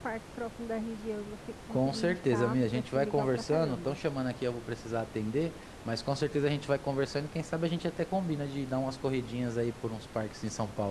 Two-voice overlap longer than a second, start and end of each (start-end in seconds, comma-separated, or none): 1.7-4.0